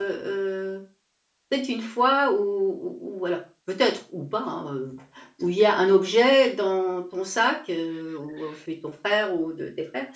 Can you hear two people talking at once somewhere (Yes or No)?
No